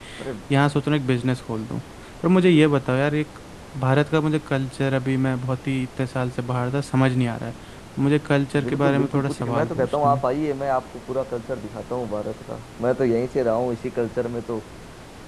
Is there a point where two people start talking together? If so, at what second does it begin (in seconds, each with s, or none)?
8.5 s